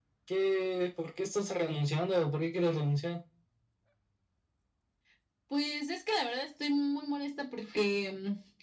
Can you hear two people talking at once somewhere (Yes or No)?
No